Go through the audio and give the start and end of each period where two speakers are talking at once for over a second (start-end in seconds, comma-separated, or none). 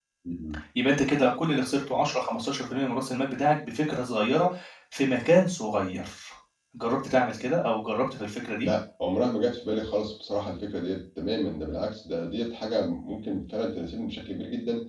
none